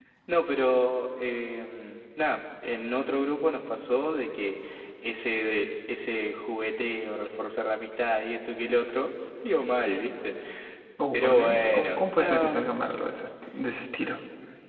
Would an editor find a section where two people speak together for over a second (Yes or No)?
Yes